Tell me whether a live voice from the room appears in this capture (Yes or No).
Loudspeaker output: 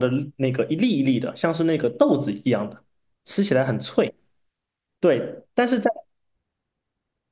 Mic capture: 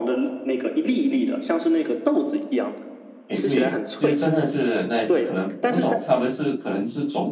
Yes